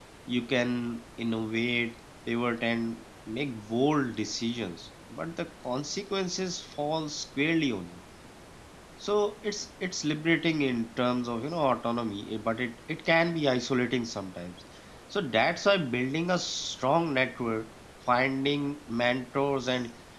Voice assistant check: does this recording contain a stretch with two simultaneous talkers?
No

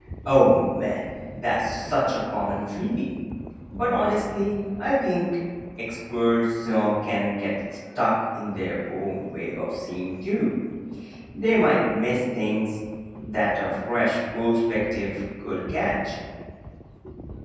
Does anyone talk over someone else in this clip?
No

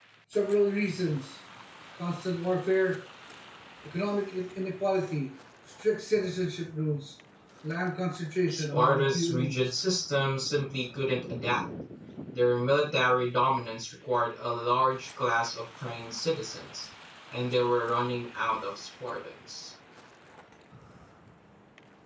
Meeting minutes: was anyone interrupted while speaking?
Yes, from 8.5 s

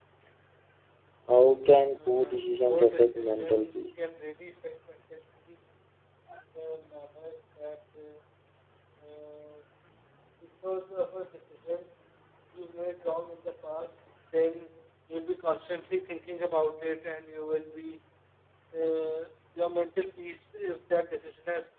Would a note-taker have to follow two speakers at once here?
Yes, from 2.1 s

